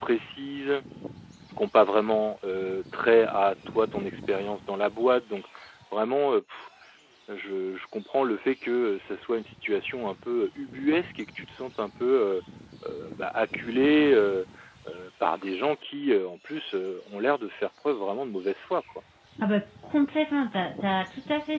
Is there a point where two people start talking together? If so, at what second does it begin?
none

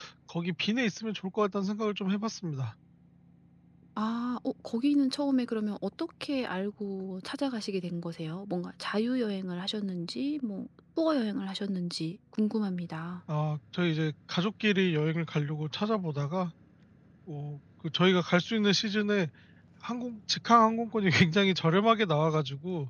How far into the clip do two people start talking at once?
none

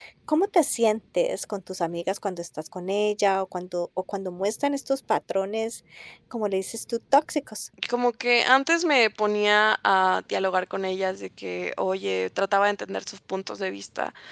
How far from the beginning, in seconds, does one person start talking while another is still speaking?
none

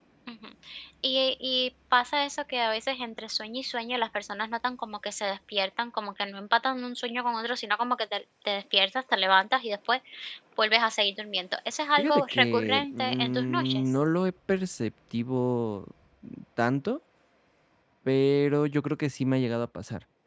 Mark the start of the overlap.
12.0 s

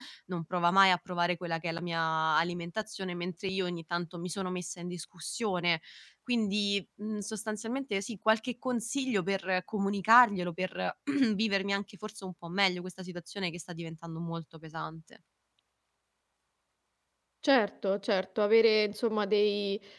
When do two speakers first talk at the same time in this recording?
none

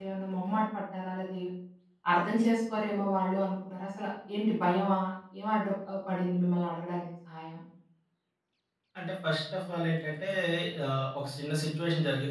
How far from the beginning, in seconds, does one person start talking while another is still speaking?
none

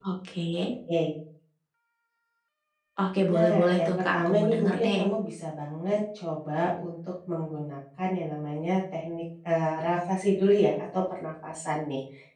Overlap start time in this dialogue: 3.3 s

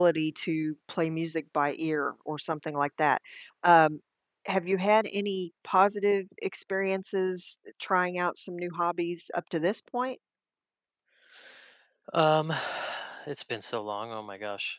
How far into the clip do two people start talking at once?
none

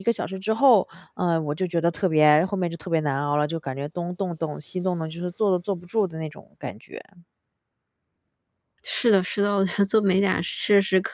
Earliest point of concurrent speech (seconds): none

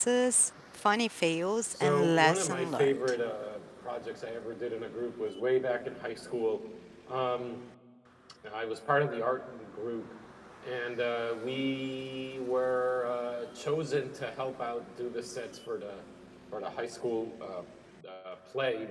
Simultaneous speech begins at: 1.7 s

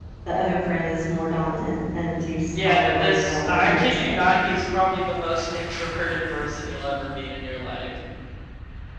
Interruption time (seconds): 2.5 s

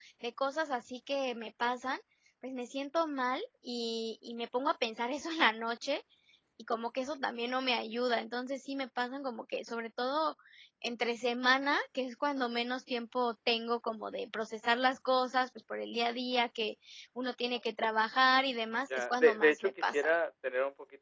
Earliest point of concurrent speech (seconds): 18.9 s

